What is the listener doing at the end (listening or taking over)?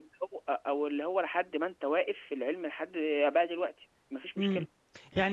taking over